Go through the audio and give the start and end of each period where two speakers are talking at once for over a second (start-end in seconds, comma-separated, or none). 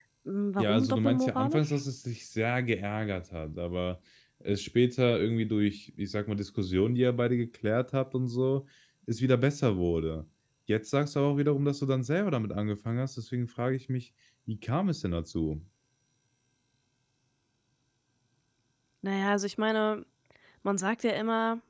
0.6-1.8